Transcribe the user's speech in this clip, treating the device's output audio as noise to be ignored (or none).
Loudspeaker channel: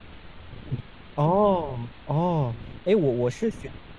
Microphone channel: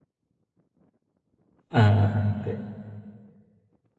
嗯嗯嗯，对。